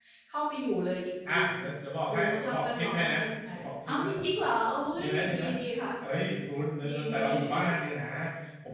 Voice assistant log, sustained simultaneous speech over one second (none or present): present